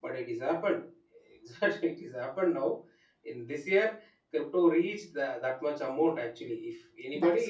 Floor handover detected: No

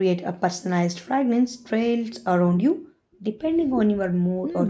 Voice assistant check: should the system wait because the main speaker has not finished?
No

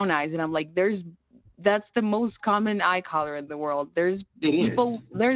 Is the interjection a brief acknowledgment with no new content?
Yes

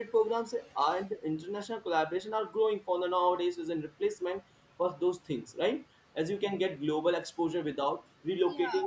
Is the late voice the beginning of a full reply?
No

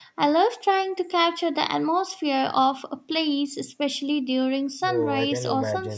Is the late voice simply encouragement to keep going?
No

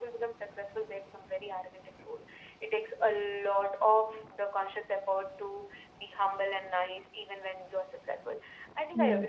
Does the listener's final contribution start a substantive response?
Yes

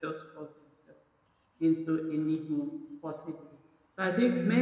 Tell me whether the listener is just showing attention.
Yes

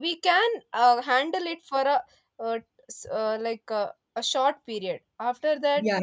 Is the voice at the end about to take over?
Yes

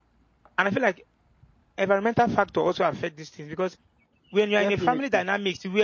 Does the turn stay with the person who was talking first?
Yes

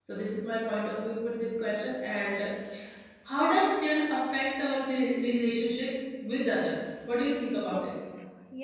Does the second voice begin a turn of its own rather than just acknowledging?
Yes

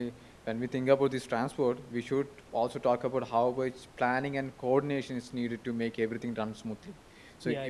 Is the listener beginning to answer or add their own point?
No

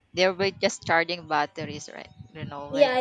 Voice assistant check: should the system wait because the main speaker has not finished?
No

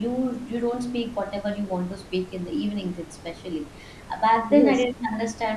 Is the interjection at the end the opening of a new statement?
No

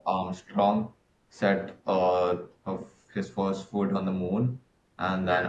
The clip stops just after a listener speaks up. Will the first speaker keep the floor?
Yes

